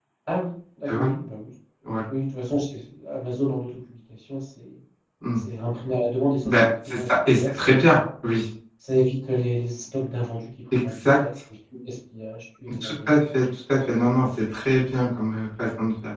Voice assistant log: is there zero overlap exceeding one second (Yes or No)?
No